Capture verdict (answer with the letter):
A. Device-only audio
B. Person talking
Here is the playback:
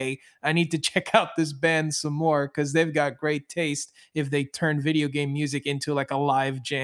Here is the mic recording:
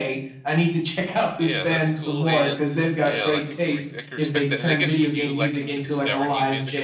B